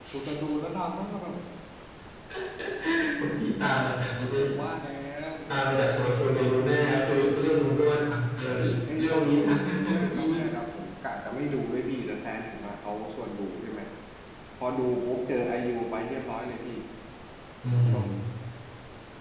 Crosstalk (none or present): present